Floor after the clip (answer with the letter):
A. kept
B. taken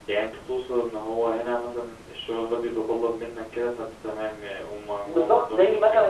B